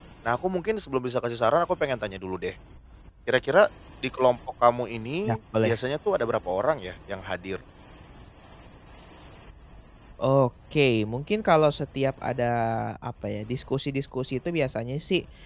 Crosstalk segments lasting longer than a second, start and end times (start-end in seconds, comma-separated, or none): none